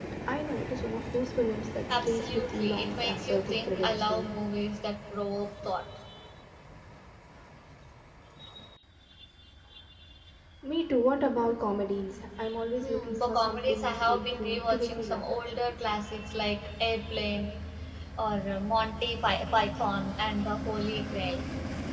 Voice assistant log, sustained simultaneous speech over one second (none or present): present